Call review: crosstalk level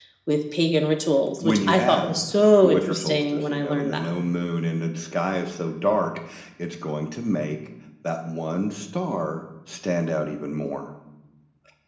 present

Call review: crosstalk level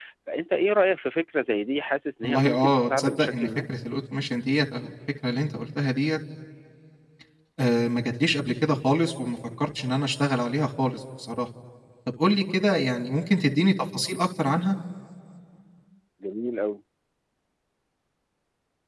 present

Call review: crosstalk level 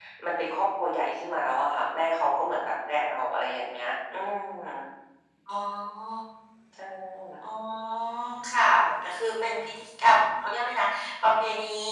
none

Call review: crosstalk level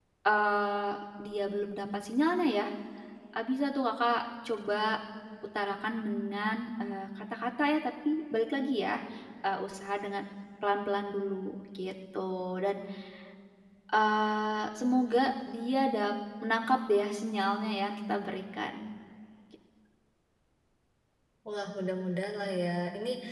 none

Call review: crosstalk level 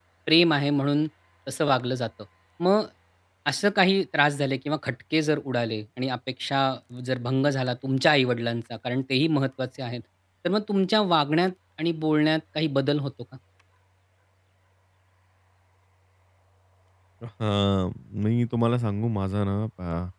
none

